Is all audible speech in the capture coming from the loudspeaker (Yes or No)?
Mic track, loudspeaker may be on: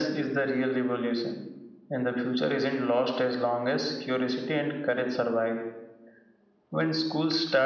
Yes